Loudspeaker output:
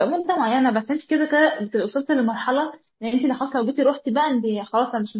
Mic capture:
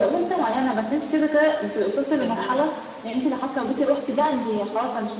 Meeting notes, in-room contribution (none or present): present